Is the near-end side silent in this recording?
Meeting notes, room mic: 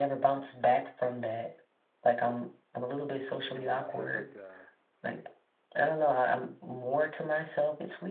No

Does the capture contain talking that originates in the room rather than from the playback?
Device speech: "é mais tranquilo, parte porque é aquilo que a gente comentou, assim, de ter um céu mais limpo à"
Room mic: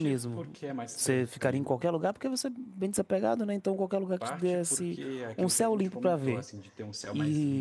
Yes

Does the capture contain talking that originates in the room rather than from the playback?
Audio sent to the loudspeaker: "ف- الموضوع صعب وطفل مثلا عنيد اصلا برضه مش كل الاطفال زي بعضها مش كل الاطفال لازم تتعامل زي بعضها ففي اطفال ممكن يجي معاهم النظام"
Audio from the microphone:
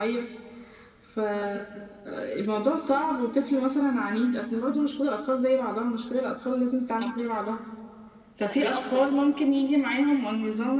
Yes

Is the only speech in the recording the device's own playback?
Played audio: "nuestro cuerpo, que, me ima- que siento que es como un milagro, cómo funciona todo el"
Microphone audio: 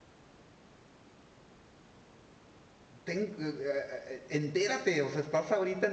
No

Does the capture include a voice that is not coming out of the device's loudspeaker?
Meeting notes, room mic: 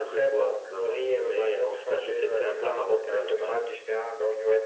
No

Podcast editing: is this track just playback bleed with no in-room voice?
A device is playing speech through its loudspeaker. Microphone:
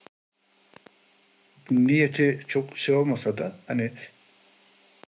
No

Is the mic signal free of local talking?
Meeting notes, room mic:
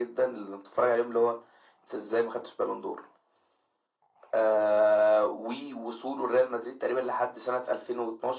Yes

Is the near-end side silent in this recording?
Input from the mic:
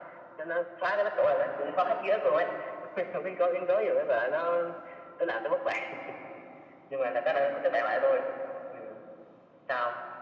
Yes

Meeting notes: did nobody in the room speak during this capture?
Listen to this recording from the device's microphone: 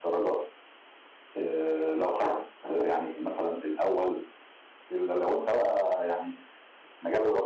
No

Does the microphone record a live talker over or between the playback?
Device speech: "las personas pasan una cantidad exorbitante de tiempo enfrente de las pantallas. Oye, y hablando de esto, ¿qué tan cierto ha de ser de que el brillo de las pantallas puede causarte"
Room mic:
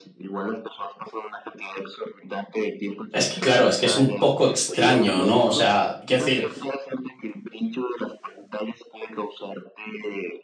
Yes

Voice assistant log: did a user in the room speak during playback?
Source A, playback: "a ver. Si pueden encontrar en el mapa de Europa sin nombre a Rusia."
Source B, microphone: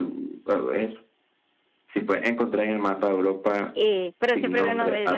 Yes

